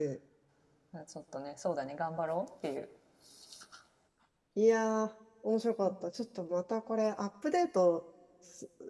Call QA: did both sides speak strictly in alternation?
Yes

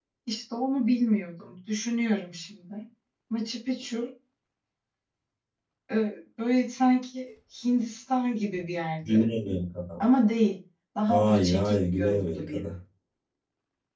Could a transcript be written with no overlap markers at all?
No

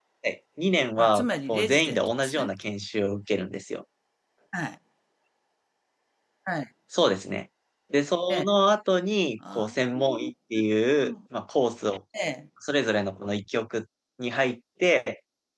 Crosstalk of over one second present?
Yes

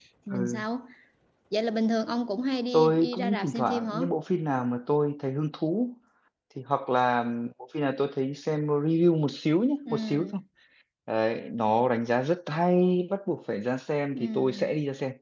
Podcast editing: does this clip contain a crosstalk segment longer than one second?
Yes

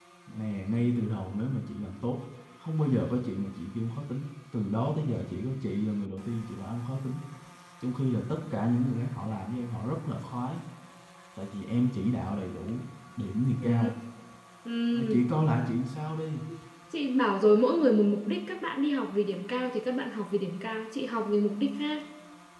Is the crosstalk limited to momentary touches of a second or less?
Yes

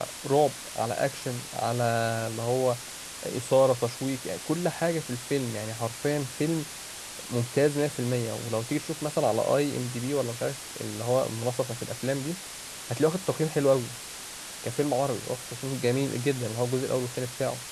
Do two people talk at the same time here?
No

